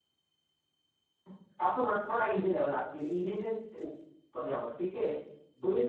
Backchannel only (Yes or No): Yes